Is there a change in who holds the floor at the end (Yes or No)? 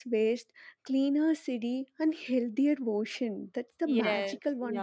Yes